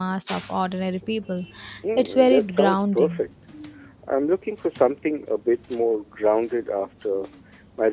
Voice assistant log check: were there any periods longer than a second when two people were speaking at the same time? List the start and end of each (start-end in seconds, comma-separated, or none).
2.0-3.2